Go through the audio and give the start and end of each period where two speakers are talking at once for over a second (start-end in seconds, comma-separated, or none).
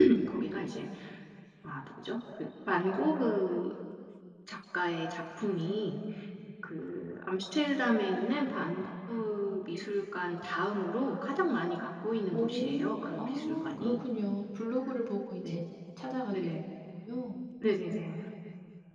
12.3-14.0